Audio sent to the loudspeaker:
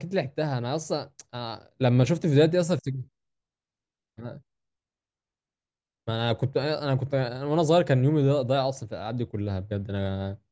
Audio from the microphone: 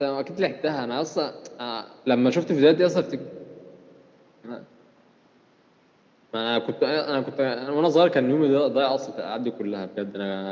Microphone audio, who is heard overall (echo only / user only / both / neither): echo only